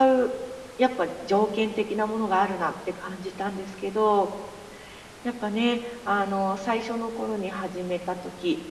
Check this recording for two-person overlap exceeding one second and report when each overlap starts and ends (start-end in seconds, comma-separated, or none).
none